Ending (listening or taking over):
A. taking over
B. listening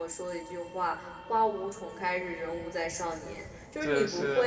B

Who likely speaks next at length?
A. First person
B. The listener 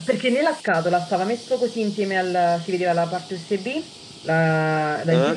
A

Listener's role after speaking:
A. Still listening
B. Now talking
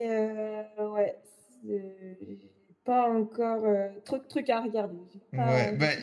B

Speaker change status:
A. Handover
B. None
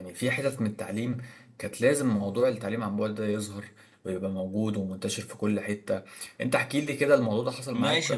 A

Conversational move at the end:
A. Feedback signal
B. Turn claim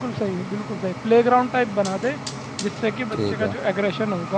A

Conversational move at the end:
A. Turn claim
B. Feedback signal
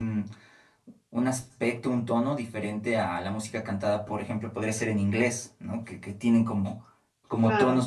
B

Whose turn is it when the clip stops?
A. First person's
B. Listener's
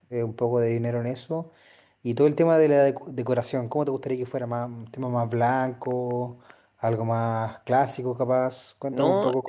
B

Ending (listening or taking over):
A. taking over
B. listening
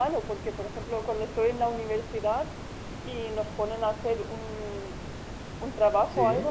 B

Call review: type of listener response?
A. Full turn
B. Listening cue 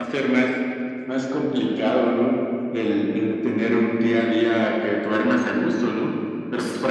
B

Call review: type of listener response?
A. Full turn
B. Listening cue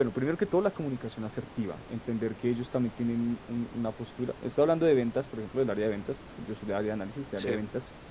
B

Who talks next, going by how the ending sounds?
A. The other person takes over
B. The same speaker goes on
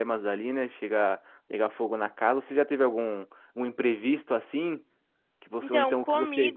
A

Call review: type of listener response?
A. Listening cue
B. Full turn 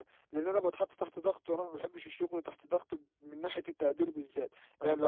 B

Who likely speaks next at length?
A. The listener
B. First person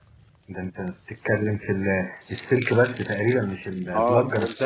A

